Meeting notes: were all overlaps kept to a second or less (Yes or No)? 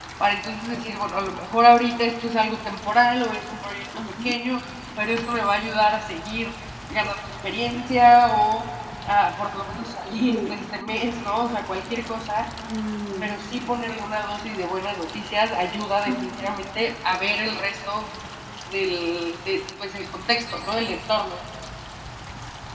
Yes